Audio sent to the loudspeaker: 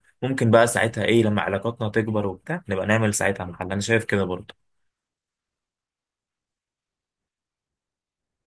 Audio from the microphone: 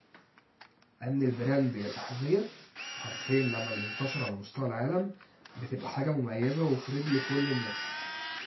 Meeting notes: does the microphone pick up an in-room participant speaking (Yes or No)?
Yes